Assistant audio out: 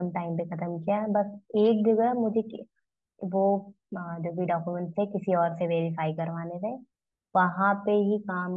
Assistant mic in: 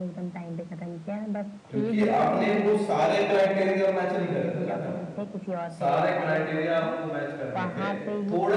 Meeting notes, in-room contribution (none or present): present